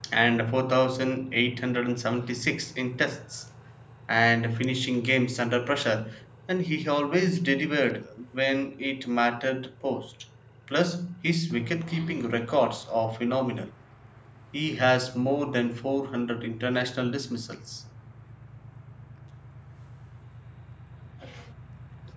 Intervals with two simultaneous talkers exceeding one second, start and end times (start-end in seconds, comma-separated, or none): none